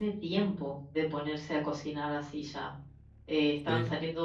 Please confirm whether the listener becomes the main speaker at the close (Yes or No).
No